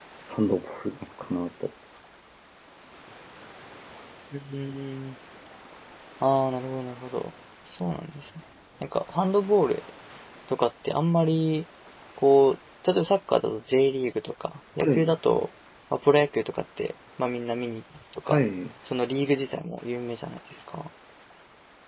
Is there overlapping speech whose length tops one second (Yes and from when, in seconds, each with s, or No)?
No